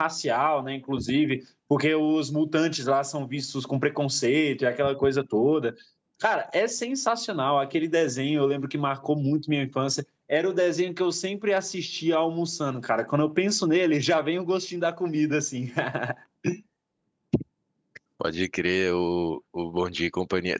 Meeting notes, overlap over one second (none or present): none